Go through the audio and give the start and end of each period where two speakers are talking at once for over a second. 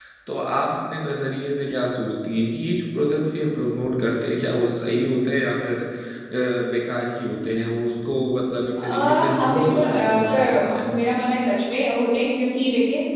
8.8-10.9

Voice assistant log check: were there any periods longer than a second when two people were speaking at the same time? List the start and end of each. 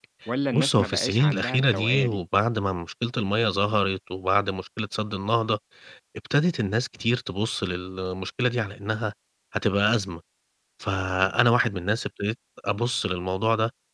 0.5-2.2

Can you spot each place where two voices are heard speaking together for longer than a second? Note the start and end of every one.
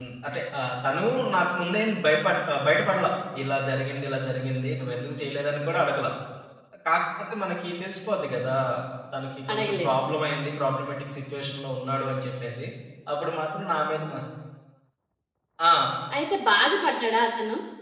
none

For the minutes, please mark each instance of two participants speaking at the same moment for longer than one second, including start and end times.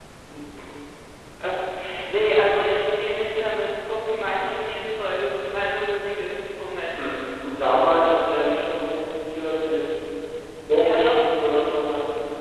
none

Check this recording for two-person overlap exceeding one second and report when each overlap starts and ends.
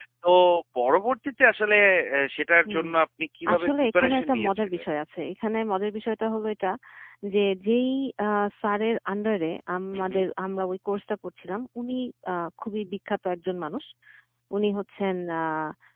3.5-4.8

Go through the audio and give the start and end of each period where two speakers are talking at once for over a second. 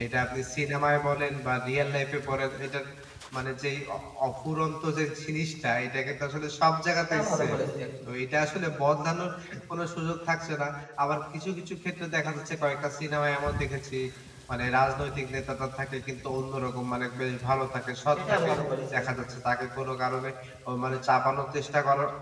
none

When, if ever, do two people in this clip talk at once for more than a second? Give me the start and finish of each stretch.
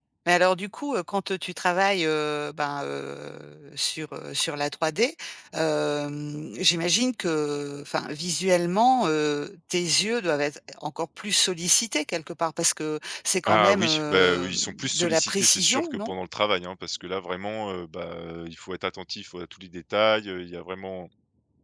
13.4-16.1

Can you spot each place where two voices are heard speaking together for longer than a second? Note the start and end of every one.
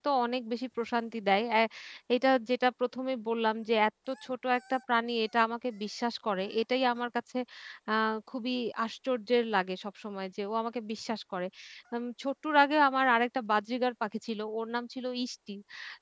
none

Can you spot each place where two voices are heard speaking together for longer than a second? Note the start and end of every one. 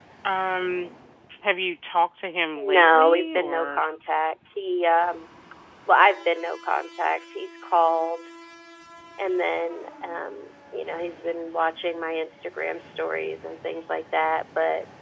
2.6-3.8

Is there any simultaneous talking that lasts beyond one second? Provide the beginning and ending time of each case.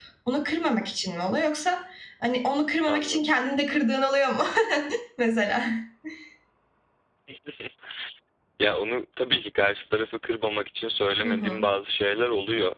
none

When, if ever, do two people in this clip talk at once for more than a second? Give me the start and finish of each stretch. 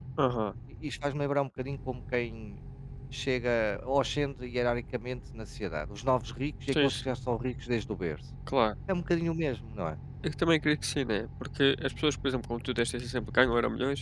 none

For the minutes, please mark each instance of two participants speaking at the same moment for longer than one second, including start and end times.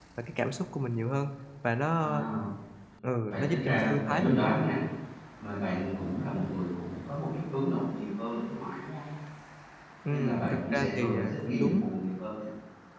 3.2-4.5, 10.1-11.9

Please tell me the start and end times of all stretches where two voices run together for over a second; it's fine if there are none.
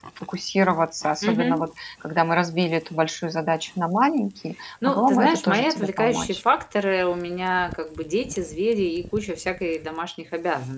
4.9-6.4

